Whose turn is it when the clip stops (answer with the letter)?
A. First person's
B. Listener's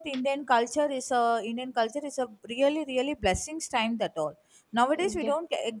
A